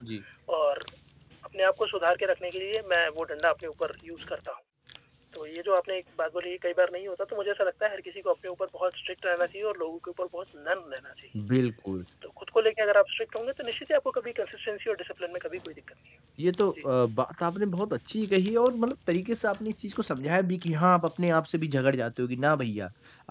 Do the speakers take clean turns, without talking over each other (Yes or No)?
Yes